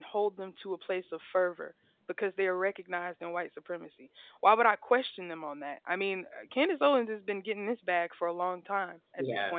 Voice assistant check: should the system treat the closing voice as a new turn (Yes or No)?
No